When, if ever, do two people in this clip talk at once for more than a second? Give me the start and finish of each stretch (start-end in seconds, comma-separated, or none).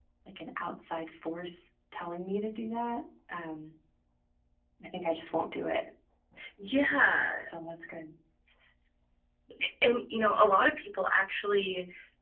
none